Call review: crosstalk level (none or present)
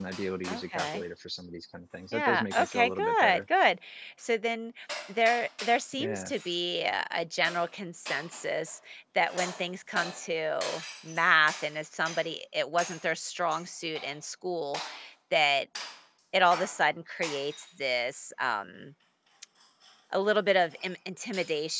present